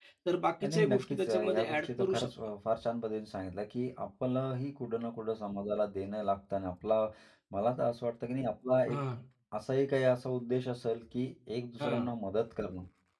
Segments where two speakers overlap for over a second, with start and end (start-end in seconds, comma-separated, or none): 0.7-2.3